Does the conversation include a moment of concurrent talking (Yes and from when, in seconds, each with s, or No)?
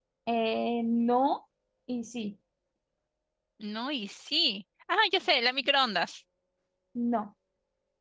No